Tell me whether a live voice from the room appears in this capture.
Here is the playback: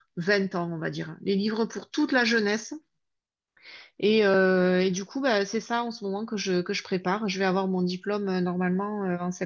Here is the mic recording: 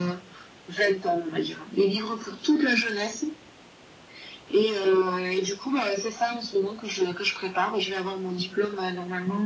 No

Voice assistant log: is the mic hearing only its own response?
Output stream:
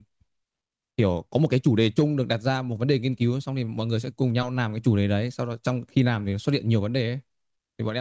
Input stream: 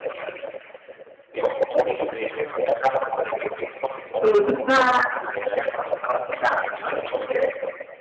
No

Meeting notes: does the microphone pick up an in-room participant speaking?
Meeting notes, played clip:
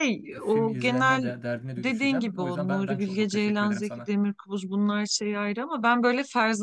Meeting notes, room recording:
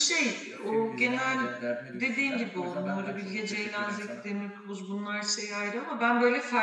No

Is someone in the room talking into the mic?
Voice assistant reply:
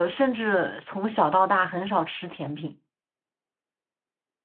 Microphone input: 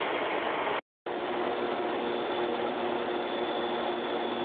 No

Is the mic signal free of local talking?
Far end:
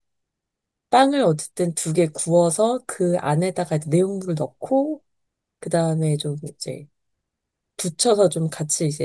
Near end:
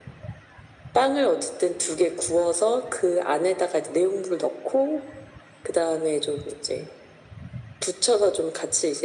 Yes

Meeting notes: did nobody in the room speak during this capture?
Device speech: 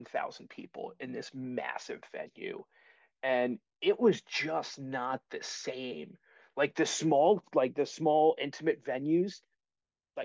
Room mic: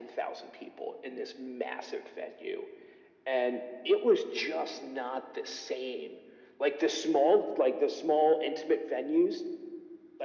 Yes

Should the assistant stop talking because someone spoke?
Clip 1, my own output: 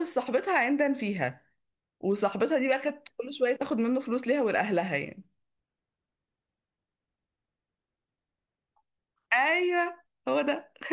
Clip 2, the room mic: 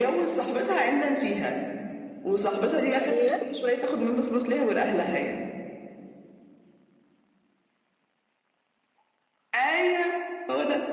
Yes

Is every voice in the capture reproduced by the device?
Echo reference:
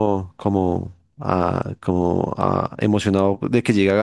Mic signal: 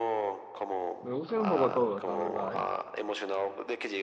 No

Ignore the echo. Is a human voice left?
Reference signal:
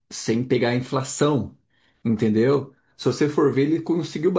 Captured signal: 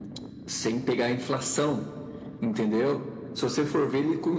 No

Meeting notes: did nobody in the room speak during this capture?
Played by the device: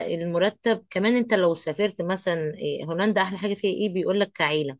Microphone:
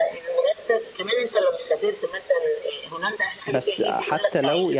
No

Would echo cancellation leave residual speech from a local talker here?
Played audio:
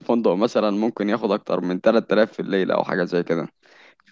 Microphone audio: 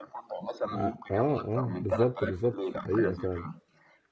Yes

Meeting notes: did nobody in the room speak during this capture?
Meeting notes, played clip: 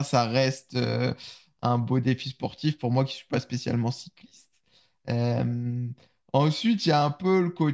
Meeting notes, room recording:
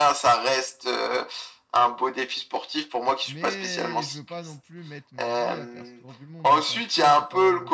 No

